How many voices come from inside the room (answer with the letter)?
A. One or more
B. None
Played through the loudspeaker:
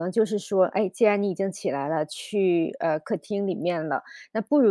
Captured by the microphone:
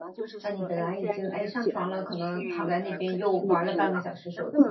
A